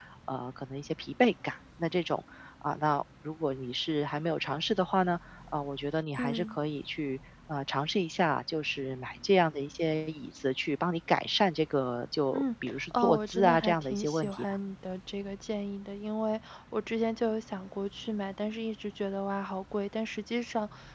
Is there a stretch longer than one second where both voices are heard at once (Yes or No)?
Yes